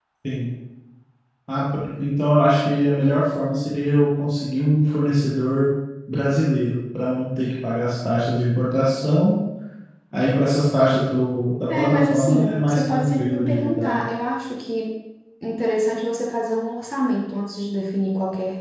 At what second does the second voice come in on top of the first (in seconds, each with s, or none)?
11.7 s